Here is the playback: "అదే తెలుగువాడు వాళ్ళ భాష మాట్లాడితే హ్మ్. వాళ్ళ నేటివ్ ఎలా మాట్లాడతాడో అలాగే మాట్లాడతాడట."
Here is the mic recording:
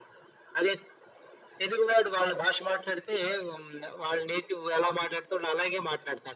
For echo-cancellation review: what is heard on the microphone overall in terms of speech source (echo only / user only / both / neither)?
echo only